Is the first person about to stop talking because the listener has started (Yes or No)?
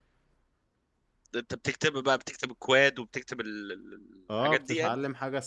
Yes